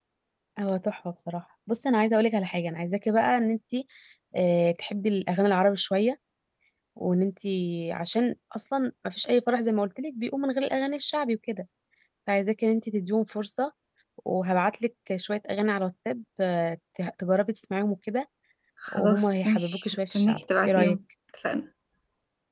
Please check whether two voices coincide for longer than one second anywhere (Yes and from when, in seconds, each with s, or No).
Yes, from 18.9 s